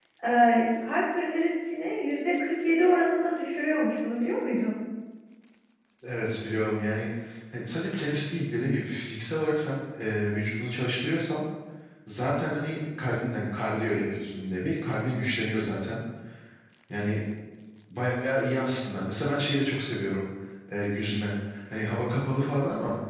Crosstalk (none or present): none